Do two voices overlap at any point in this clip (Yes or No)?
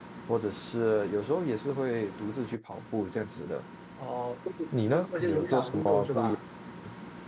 Yes